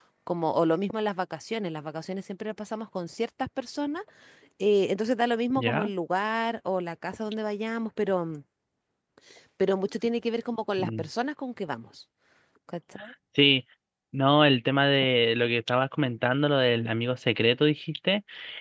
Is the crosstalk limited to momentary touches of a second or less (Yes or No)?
Yes